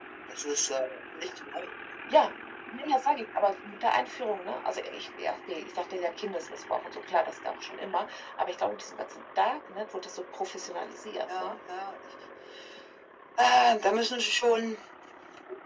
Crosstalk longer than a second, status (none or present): none